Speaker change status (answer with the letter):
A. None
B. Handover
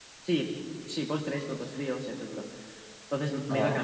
A